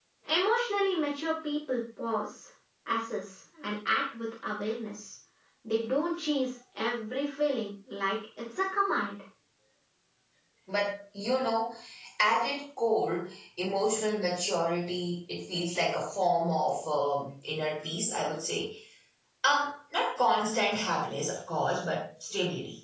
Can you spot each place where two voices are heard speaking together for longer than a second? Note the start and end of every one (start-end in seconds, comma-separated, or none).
none